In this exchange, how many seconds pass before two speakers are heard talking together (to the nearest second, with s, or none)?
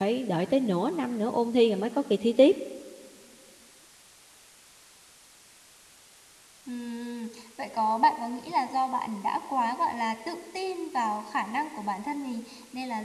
none